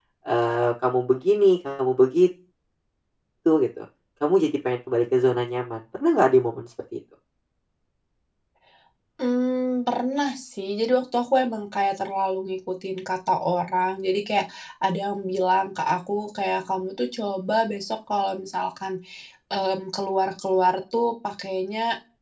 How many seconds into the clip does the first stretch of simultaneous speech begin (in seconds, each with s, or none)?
none